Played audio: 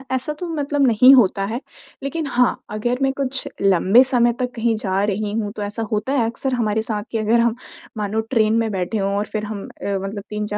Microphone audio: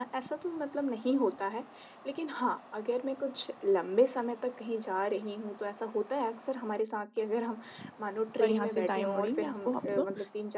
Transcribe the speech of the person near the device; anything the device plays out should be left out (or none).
और यहाँ से दाएँ मुड़ेंगे आपको आपको